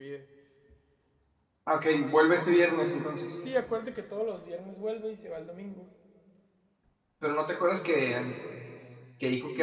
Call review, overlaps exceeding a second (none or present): none